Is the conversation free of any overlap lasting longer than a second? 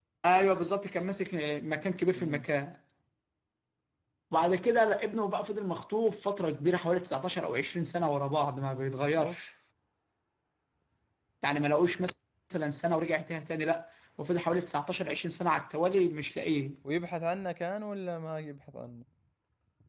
Yes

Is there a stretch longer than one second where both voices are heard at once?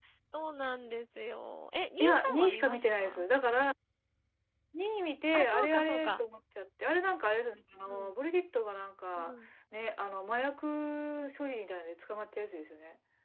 Yes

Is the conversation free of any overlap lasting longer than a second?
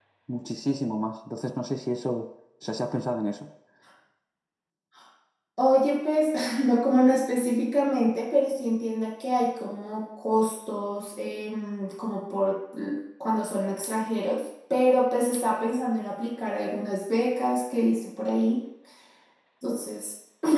Yes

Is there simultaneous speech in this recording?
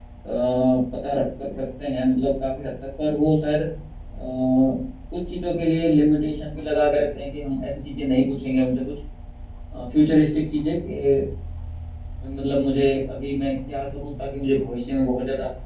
No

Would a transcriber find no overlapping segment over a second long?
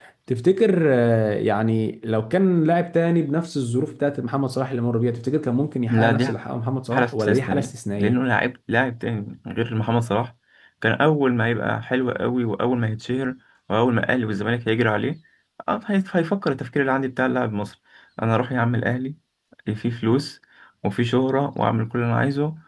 No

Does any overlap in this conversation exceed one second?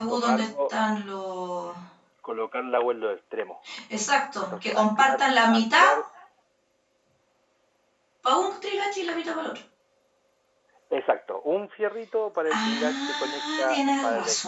Yes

